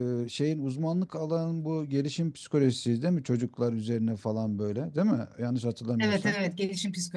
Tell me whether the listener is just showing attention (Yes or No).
No